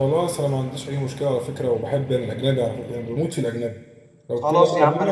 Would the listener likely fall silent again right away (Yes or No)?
No